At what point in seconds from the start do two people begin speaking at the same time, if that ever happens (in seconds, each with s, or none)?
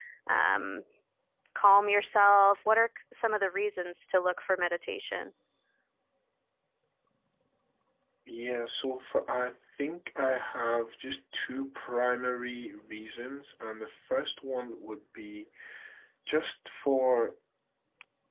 none